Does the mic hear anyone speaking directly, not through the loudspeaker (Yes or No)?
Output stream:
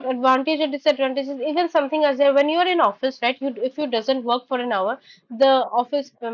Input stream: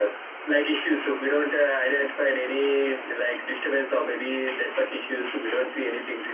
Yes